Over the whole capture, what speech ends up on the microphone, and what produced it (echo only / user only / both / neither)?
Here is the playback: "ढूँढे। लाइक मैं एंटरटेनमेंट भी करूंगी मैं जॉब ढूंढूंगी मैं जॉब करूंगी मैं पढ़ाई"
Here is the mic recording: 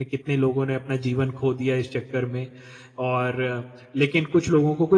user only